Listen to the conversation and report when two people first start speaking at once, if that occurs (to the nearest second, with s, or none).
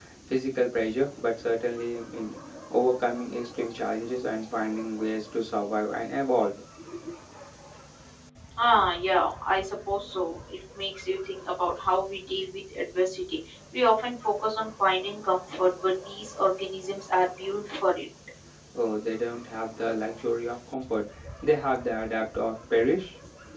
none